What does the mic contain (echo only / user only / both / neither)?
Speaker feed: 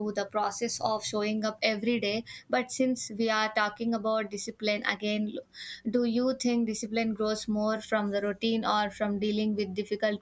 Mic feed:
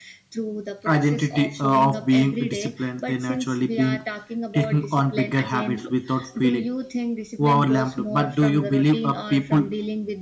both